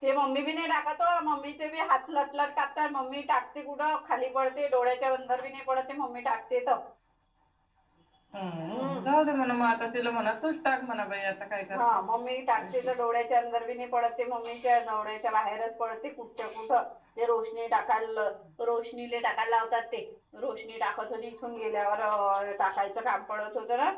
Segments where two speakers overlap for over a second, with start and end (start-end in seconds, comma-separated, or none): none